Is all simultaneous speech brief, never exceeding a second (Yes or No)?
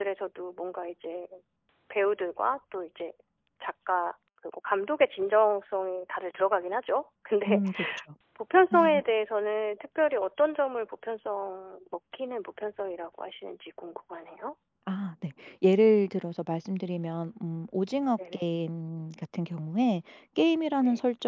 Yes